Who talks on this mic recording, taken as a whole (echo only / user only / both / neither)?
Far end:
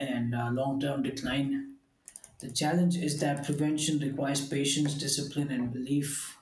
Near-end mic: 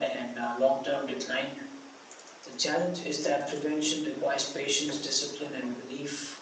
echo only